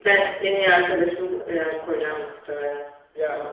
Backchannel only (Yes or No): No